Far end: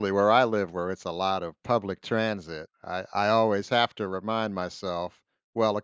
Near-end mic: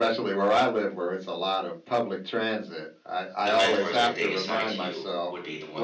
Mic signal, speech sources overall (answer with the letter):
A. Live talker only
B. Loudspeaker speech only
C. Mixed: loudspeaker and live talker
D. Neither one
C